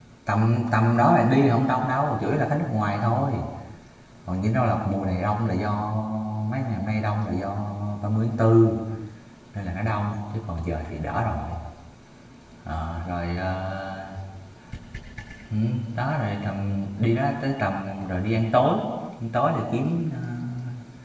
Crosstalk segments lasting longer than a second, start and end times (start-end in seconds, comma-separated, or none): none